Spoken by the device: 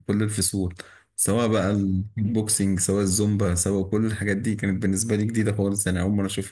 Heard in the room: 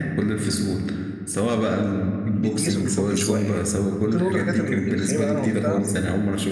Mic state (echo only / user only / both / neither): both